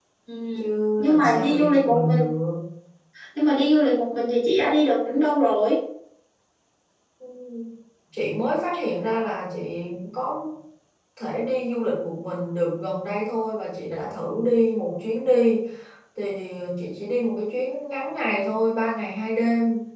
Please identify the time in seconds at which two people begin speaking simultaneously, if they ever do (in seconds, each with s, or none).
1.0 s